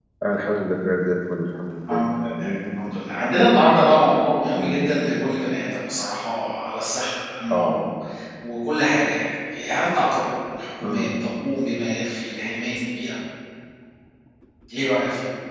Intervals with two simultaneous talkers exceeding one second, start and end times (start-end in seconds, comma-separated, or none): none